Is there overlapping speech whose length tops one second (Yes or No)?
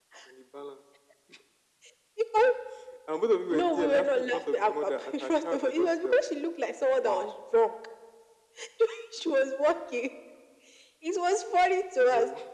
Yes